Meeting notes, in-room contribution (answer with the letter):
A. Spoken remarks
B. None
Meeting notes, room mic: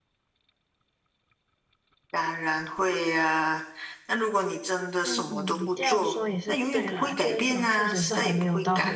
A